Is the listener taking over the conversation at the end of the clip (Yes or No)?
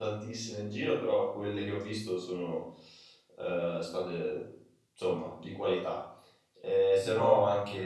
No